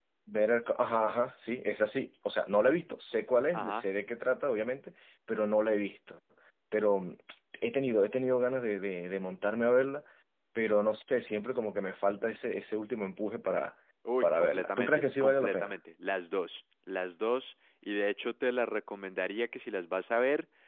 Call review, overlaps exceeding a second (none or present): present